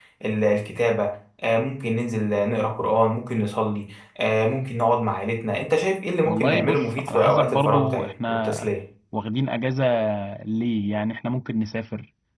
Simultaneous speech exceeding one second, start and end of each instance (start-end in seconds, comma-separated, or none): 6.2-8.7